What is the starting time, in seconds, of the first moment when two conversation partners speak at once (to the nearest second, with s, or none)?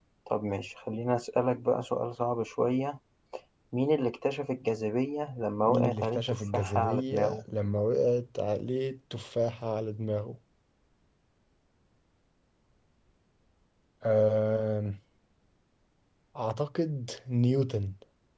6 s